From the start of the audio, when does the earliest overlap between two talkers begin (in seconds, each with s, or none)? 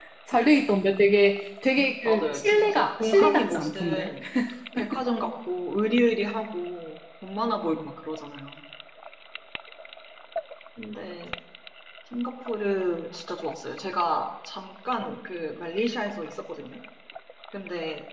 2.0 s